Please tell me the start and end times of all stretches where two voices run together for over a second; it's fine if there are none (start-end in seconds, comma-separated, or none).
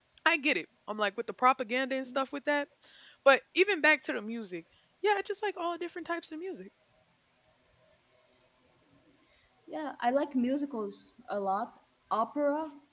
none